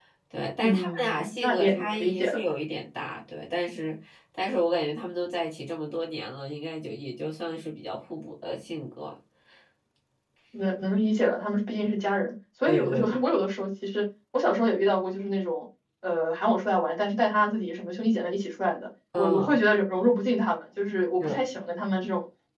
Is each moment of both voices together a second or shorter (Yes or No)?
No